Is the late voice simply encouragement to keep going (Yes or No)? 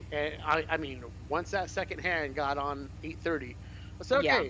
Yes